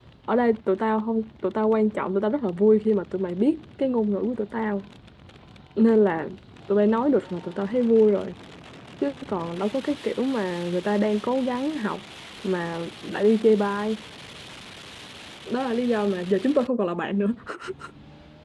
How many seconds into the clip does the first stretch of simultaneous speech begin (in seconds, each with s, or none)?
none